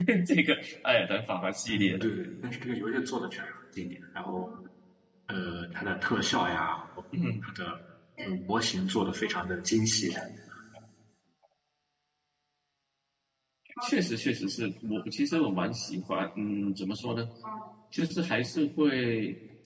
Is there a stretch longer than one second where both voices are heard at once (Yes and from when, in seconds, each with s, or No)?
No